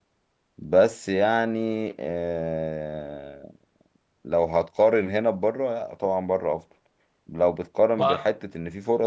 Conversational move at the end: listening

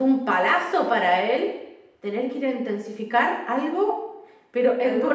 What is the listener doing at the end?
taking over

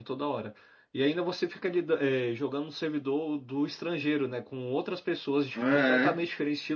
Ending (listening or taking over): listening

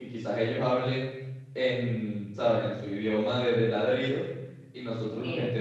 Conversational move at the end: listening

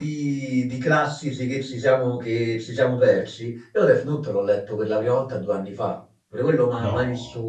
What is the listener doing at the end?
listening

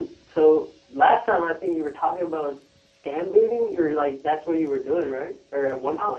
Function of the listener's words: taking over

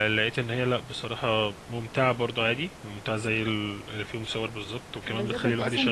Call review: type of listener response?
taking over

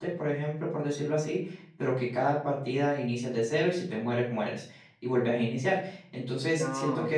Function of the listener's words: listening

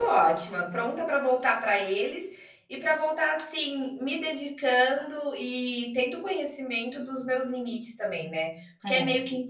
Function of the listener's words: listening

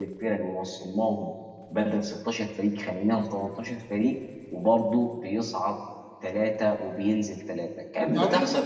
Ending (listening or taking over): taking over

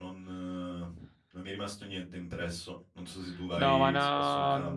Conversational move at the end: taking over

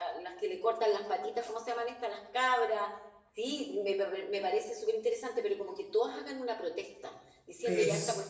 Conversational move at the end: listening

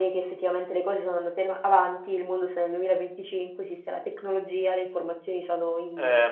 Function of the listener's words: taking over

